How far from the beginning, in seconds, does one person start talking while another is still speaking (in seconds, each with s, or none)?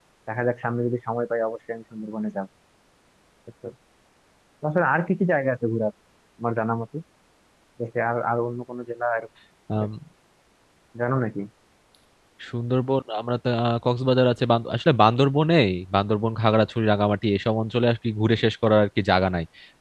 none